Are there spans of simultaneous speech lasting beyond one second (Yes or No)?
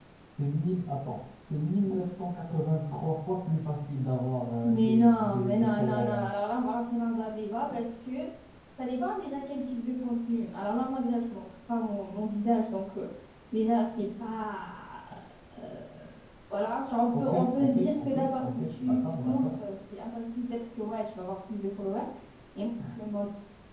Yes